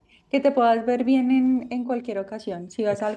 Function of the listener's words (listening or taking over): listening